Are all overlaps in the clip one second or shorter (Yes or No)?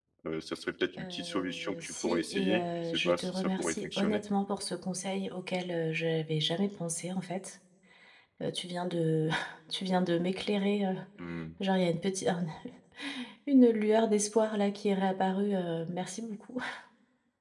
No